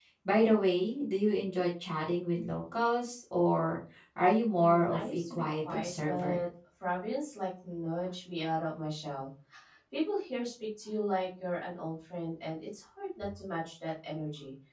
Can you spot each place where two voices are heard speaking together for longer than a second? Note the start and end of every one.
4.5-6.4

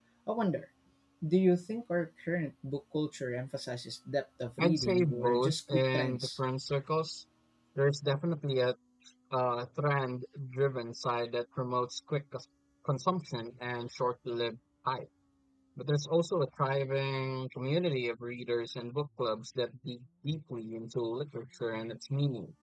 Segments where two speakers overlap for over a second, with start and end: 4.6-6.4

